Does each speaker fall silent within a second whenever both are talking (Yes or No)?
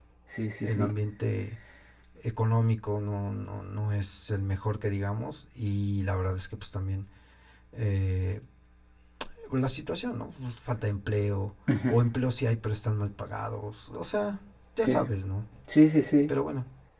Yes